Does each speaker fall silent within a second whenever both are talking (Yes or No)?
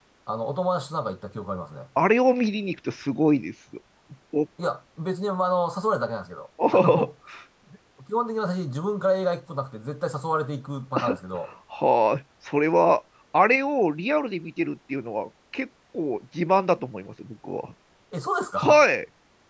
Yes